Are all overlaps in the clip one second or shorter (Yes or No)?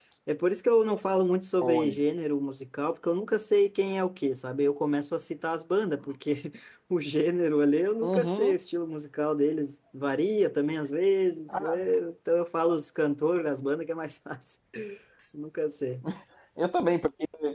Yes